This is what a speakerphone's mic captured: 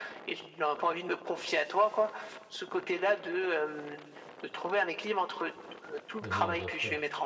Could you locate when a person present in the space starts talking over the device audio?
6 s

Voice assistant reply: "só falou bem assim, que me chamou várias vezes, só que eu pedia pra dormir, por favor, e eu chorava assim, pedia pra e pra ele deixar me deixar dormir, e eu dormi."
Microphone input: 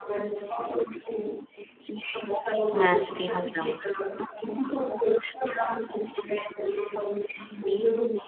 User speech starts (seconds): 3 s

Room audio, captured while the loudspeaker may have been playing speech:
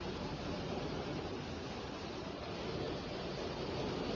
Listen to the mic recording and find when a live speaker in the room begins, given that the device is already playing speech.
none

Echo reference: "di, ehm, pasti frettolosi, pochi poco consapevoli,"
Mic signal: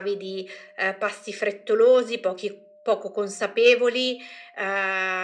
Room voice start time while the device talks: none

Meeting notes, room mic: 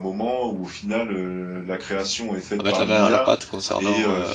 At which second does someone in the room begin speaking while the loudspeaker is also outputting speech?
3 s

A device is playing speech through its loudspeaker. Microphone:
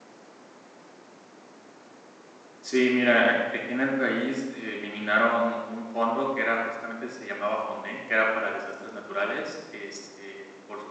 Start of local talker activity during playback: 3 s

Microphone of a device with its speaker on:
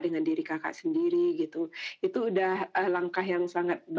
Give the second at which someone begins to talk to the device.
none

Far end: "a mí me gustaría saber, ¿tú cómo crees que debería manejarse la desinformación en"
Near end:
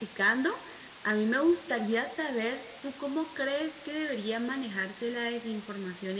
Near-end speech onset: none

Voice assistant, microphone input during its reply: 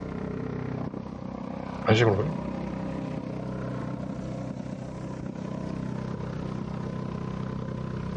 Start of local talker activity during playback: 2 s

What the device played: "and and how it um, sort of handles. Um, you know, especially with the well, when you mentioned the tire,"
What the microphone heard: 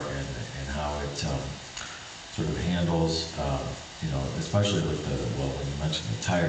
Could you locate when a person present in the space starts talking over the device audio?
none

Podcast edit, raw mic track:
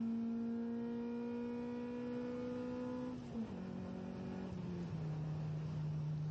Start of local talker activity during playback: none

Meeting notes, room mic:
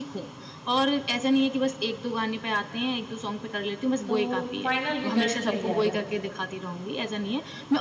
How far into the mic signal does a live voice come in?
4 s

